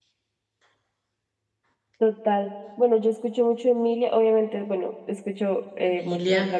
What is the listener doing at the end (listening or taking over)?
listening